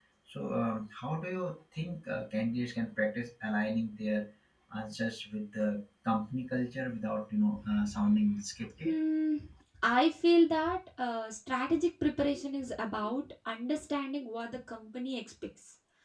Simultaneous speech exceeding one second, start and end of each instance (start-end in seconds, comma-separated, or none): none